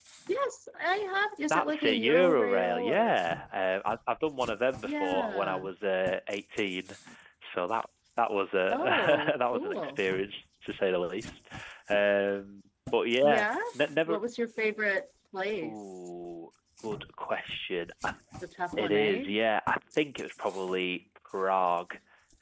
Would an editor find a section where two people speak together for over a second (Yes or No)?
Yes